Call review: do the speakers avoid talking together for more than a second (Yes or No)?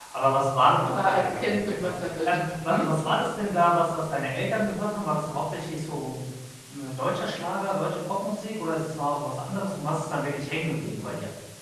No